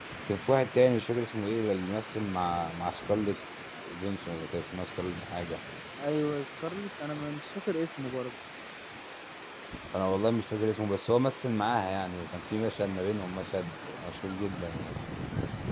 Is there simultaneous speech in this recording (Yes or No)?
No